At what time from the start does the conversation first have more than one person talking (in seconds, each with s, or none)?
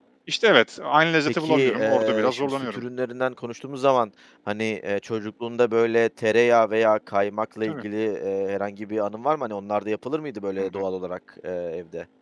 1.3 s